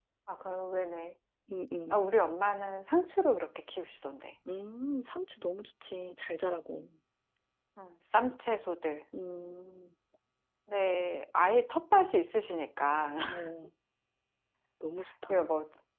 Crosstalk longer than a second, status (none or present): none